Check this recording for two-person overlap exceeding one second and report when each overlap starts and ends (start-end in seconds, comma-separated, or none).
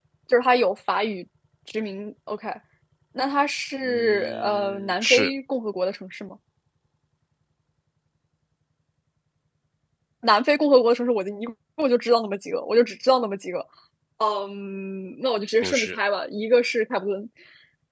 3.8-5.3